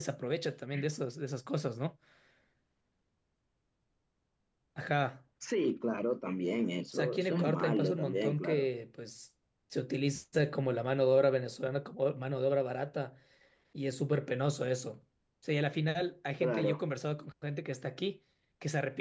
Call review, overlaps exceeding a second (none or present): present